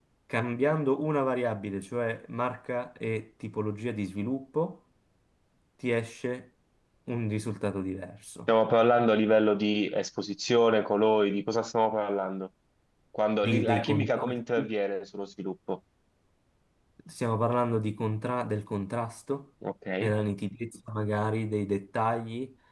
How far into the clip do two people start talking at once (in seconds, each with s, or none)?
13.4 s